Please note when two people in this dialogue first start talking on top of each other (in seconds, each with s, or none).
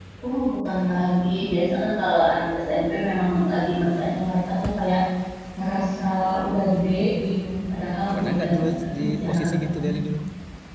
8.2 s